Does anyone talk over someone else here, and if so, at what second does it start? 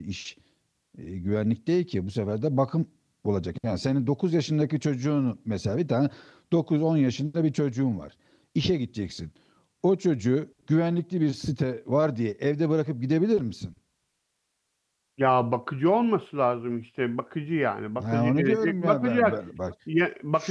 18.0 s

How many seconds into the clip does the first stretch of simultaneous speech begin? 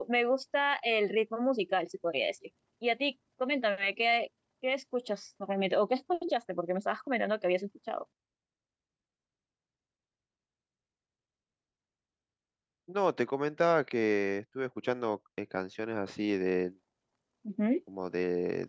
none

